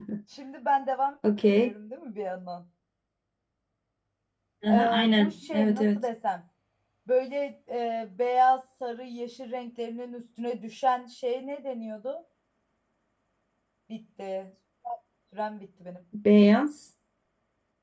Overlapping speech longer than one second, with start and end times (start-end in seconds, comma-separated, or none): 4.7-6.0